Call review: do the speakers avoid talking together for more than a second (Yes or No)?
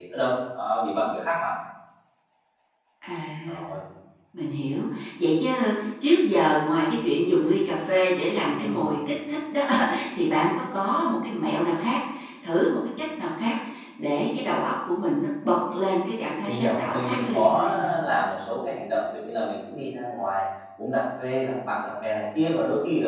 No